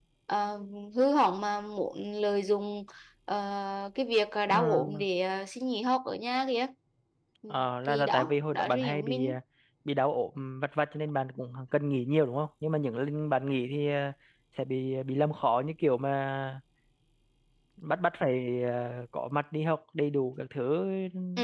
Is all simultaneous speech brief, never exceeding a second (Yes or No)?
No